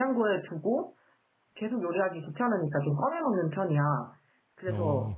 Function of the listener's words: listening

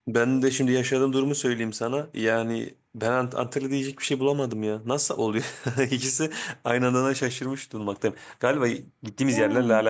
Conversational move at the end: listening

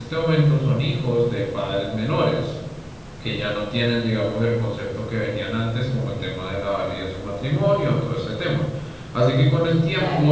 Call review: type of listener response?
listening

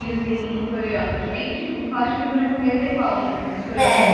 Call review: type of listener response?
taking over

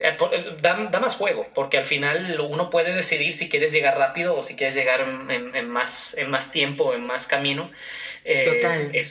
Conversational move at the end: listening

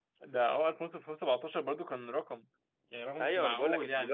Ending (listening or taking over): taking over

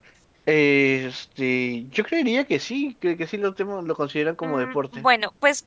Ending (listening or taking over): taking over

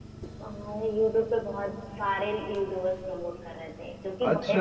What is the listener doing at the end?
taking over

